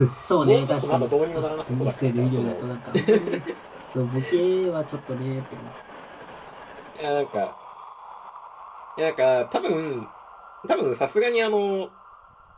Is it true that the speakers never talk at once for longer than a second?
No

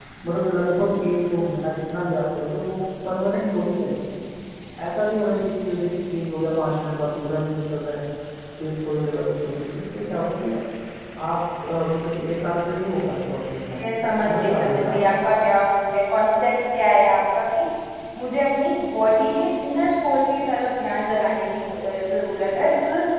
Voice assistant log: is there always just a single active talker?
No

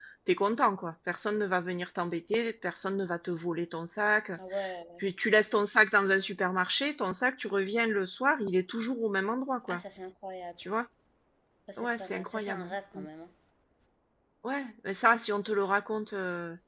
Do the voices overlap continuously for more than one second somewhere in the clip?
Yes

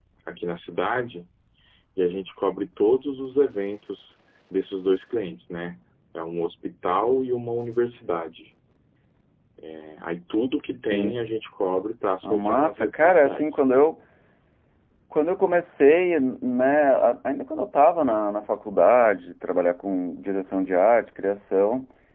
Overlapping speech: Yes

